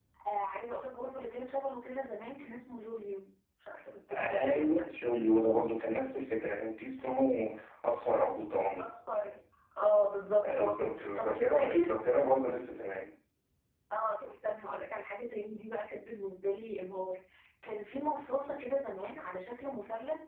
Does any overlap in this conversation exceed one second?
Yes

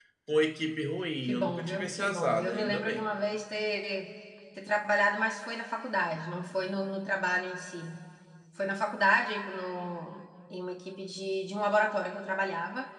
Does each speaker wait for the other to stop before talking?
No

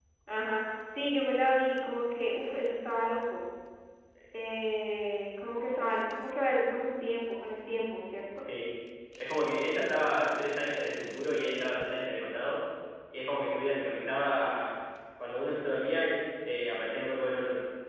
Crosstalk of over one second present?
No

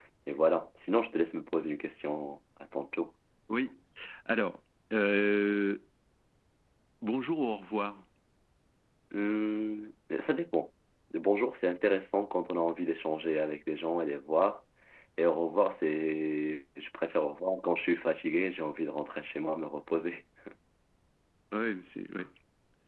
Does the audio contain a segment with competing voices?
No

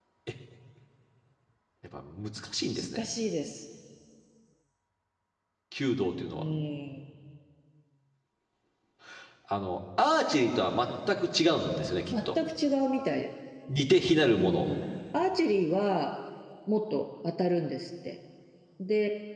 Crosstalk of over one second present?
No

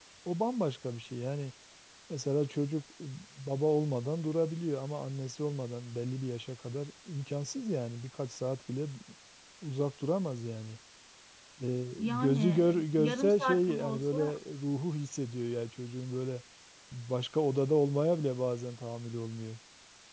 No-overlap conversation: No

